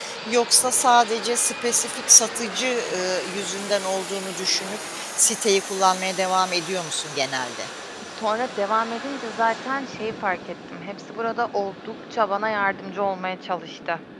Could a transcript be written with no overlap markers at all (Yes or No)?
Yes